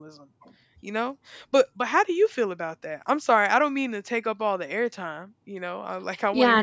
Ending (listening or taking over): taking over